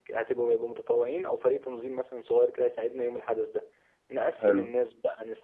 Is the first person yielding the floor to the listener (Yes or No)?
No